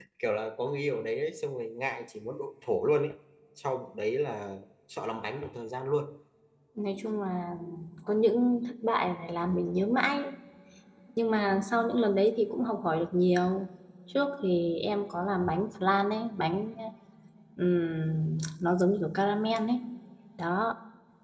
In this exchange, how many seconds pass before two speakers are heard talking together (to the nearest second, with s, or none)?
none